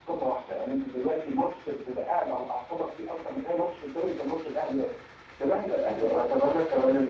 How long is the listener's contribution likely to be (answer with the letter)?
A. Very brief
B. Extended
B